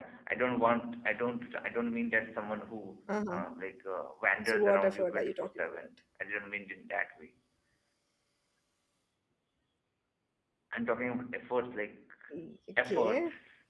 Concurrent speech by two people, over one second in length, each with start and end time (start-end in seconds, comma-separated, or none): 4.5-5.9